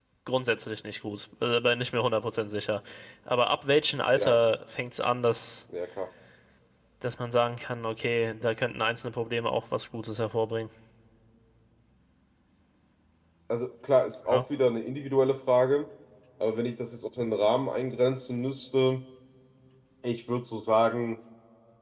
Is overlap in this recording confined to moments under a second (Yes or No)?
Yes